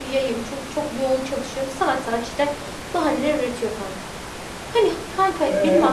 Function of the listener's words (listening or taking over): listening